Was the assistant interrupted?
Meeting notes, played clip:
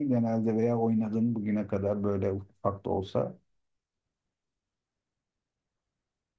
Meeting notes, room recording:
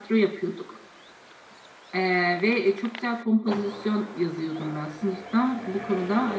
Yes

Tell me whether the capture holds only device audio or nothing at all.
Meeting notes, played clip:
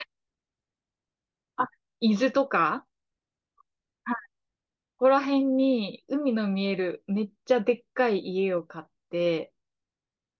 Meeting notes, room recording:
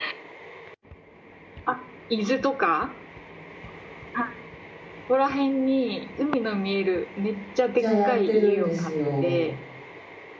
No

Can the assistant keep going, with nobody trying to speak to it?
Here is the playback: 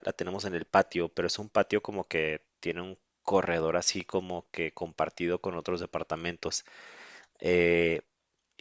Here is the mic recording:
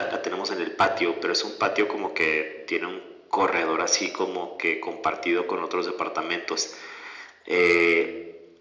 Yes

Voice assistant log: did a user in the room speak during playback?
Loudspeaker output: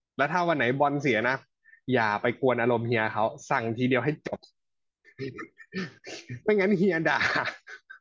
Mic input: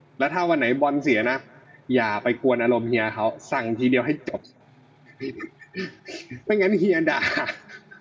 No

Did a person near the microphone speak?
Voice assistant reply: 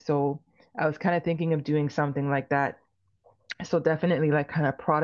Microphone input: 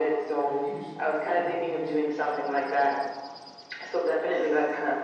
Yes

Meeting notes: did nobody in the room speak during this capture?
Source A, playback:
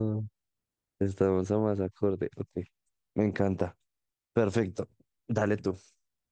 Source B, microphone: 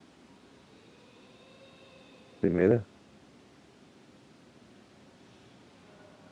No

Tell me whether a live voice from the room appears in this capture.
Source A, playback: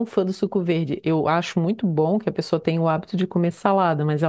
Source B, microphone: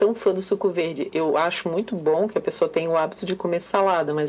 No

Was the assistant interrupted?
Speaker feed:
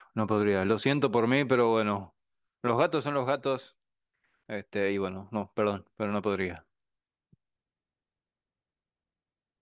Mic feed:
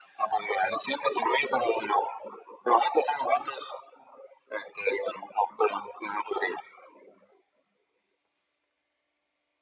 No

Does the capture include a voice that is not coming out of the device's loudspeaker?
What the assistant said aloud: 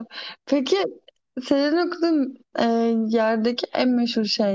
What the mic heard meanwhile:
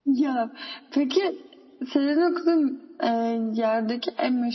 No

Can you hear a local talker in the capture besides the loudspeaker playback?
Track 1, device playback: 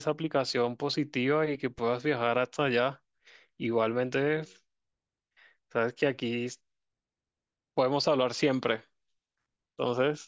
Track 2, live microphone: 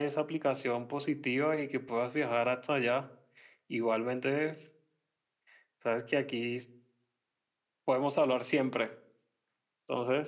No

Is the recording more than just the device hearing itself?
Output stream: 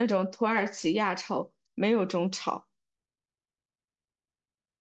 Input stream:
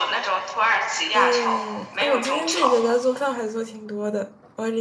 Yes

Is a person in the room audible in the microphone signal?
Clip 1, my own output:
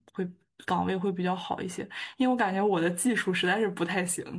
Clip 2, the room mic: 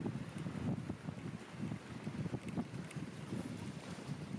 No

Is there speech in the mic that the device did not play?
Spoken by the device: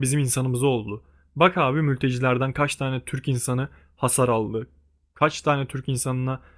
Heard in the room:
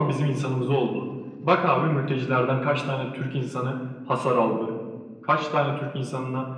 No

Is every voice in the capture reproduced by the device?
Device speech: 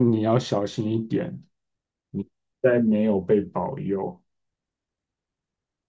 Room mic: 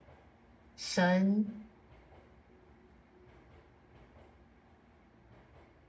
No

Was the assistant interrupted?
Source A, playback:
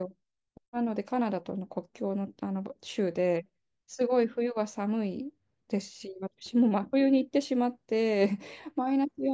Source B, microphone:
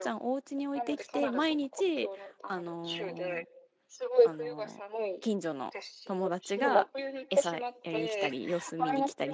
Yes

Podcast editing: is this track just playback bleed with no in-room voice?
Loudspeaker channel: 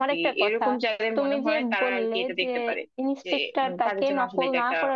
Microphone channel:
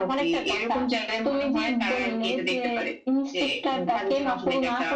Yes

